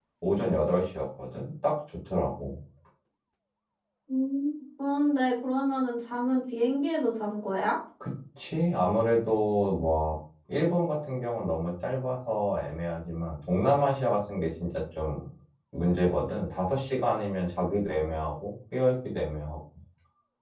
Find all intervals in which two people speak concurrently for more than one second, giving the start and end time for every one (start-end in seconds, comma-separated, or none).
none